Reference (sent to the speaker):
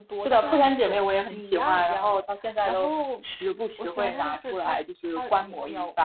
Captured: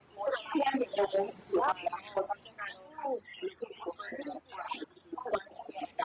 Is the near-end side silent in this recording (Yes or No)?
Yes